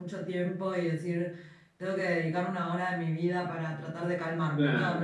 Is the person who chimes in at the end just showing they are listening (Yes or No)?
No